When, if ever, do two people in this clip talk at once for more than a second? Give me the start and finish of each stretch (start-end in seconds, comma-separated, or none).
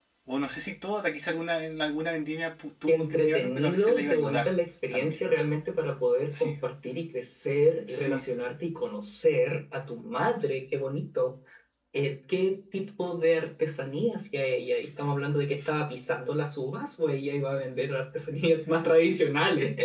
2.9-4.5